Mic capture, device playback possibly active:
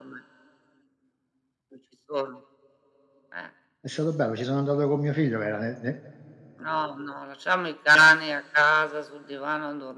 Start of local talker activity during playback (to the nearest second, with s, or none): 4 s